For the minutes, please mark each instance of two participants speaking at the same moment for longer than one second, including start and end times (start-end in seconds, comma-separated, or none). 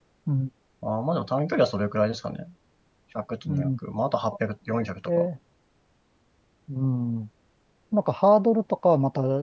none